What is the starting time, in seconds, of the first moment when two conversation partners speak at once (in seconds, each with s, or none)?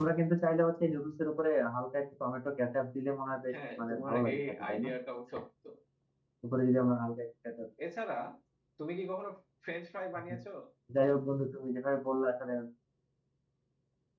3.5 s